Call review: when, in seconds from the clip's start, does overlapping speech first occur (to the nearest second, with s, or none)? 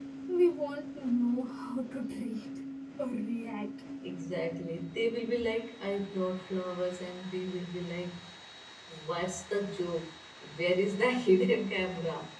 none